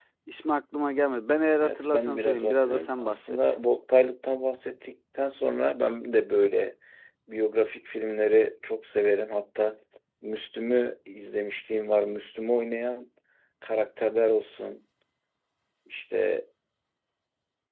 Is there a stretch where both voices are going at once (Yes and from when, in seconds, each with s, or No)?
Yes, from 1.6 s